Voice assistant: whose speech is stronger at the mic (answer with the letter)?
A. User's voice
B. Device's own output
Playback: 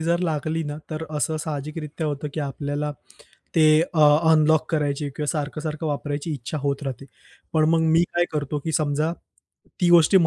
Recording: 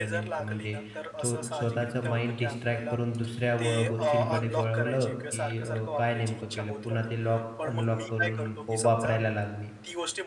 A